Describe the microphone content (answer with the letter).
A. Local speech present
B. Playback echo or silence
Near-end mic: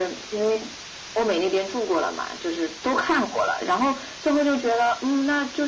B